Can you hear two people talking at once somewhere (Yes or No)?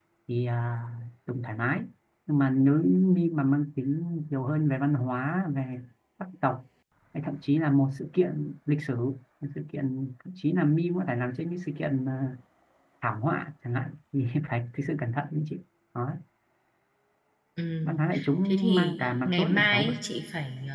Yes